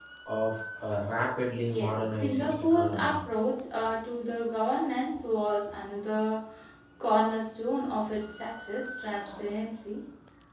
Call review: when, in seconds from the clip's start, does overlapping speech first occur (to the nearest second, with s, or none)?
2 s